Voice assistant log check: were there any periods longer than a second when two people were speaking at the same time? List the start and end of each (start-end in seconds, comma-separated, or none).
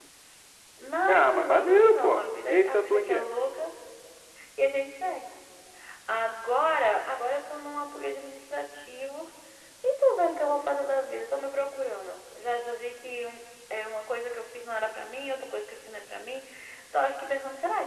1.1-3.3